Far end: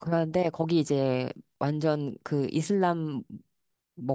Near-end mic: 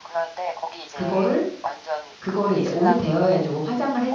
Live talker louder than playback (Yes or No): Yes